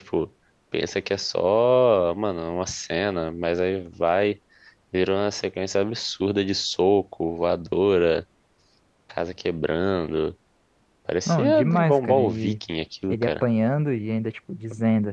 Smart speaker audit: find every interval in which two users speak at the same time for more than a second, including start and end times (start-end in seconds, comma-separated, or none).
11.3-12.5